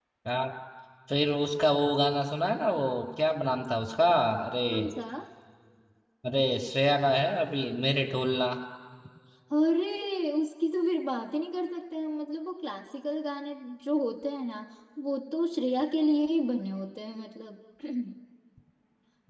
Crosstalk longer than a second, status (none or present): none